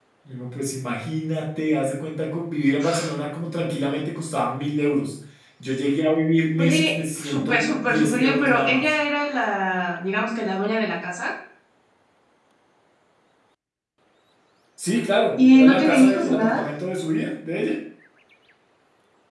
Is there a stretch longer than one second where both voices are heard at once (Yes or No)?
Yes